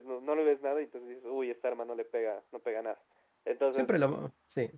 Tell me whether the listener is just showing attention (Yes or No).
No